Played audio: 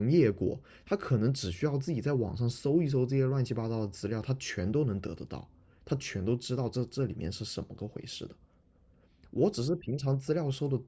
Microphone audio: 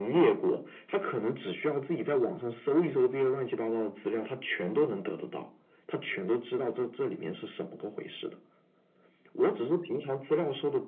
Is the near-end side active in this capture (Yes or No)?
No